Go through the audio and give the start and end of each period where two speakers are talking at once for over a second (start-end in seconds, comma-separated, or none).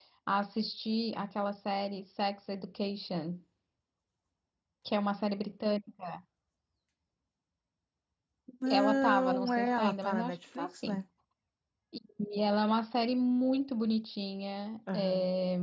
8.7-11.0